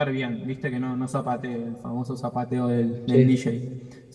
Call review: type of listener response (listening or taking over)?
listening